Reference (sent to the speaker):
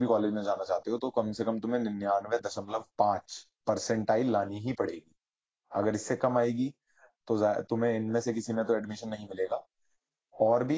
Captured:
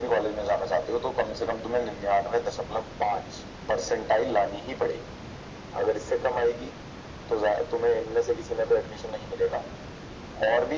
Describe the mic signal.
echo only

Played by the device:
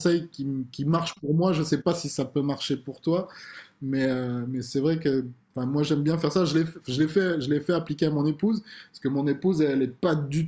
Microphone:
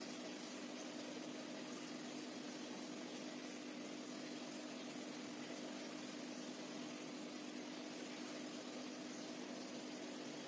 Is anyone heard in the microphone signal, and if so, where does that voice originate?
neither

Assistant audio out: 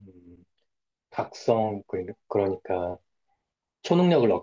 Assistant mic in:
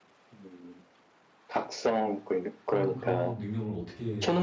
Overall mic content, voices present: both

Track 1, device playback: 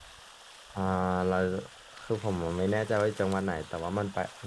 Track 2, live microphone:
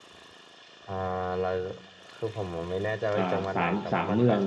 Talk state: both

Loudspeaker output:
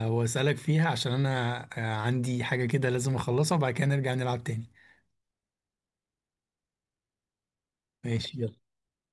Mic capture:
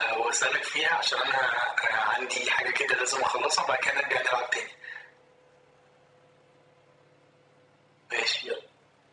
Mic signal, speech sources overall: echo only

